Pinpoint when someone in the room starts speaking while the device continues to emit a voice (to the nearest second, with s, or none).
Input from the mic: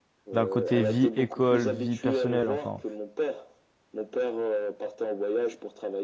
0 s